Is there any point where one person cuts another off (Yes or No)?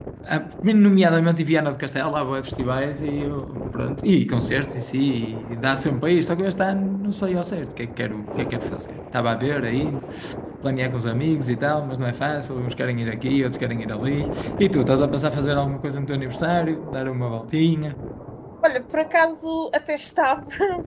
No